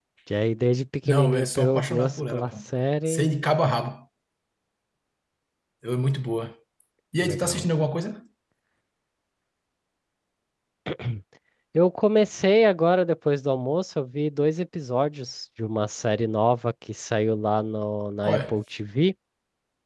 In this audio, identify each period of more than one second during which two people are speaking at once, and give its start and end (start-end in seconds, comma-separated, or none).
1.1-2.5